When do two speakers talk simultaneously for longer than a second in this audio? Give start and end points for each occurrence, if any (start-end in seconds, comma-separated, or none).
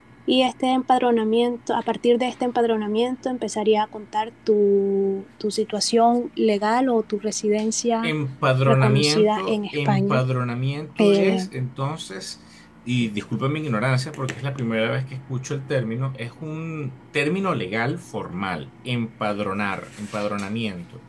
8.7-10.2